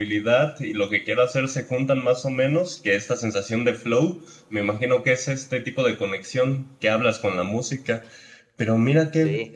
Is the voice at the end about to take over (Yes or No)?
No